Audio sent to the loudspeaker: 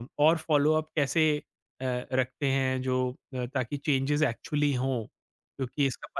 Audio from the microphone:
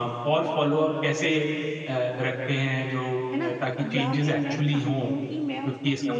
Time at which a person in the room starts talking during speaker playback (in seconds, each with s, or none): 3.3 s